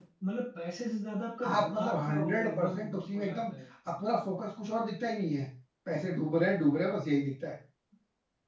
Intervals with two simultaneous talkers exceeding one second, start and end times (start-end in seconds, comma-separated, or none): 1.5-3.5